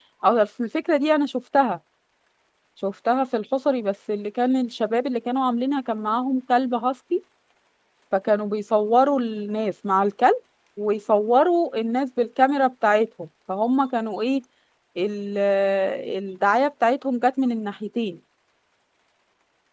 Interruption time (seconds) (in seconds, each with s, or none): none